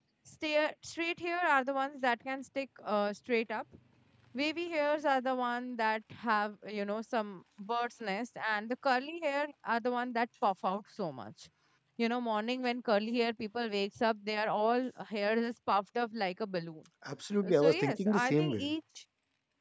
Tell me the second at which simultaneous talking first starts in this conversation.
17.5 s

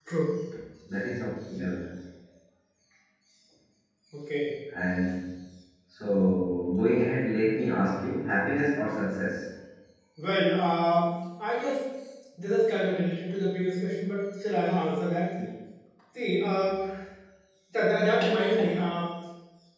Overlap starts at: none

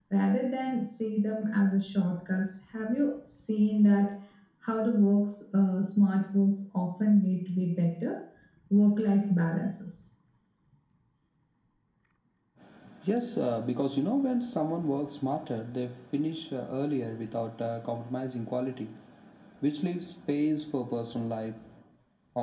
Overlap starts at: none

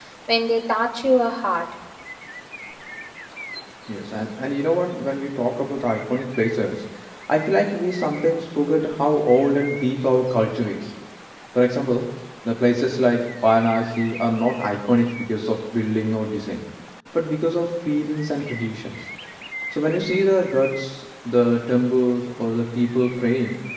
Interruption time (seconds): none

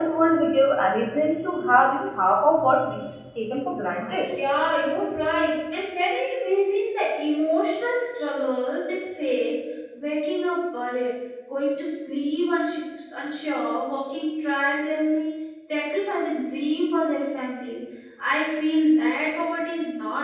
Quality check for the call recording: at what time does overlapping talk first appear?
none

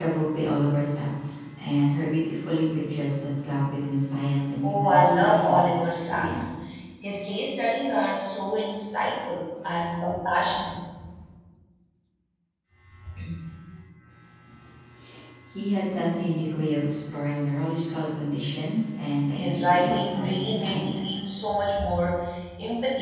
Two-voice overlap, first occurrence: 4.6 s

